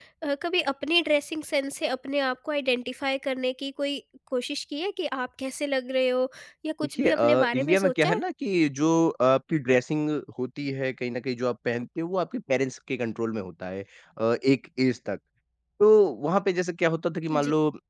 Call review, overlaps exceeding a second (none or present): present